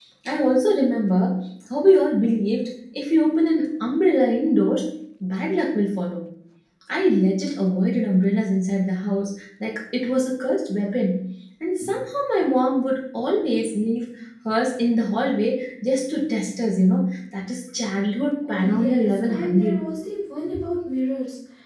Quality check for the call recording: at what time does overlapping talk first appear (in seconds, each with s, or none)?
18.4 s